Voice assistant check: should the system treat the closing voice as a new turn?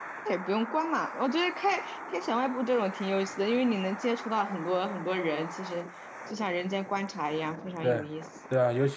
Yes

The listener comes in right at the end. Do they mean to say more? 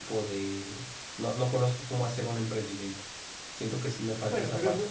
Yes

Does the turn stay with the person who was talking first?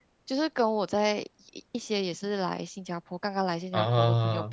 Yes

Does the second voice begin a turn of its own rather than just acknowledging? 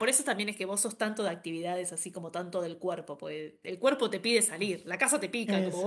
Yes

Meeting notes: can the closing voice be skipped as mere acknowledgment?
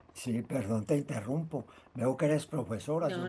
Yes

